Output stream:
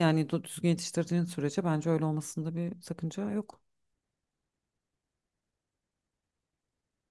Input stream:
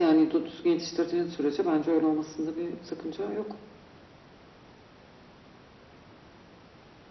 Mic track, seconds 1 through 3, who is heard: echo only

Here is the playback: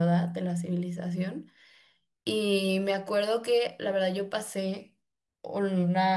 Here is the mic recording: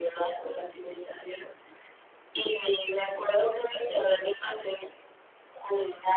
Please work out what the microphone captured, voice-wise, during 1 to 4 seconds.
echo only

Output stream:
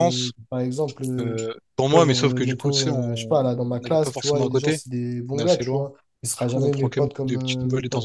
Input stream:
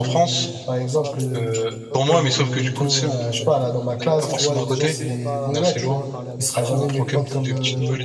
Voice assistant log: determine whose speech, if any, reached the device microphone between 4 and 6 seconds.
both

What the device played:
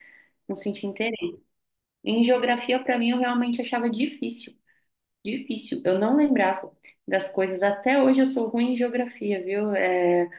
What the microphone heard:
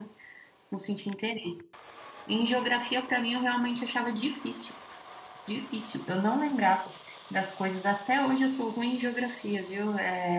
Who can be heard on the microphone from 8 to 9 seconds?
echo only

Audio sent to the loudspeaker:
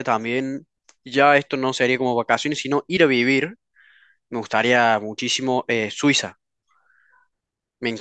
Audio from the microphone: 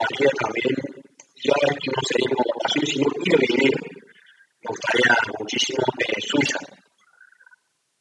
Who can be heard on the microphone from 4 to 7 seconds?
echo only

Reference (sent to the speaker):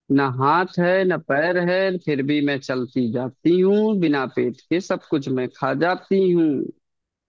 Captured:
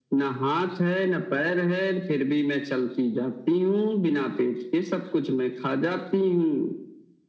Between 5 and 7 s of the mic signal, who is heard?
echo only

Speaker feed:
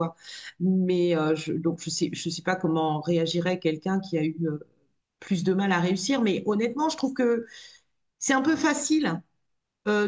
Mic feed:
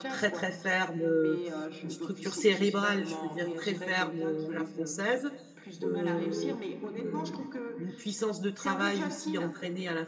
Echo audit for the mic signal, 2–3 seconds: both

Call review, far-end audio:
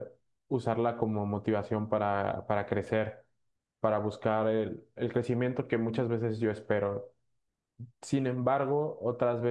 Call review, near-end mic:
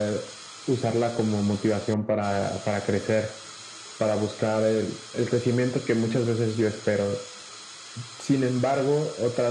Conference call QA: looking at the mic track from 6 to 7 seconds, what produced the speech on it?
echo only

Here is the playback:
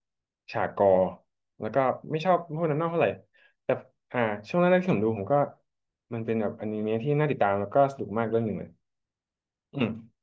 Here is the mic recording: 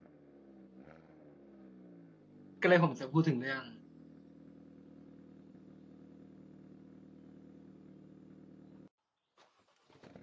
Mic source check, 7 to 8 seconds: neither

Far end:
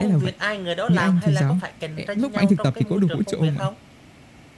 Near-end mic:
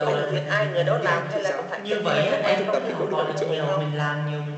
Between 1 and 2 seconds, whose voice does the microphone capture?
both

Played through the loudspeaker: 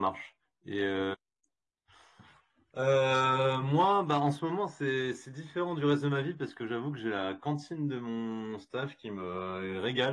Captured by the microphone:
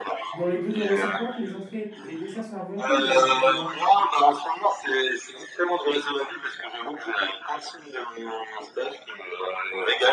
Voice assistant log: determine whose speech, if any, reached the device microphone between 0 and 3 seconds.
both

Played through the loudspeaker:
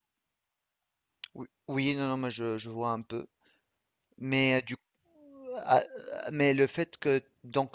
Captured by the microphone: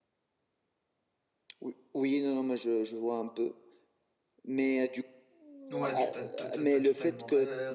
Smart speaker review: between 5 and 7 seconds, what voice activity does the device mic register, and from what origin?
both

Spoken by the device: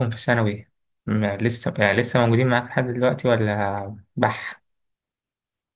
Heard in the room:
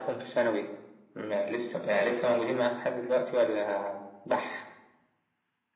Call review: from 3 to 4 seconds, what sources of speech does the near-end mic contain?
echo only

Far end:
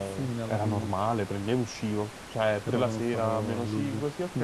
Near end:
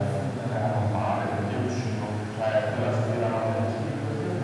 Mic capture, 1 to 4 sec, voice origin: echo only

